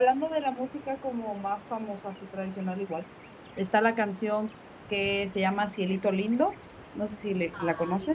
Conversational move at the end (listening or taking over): taking over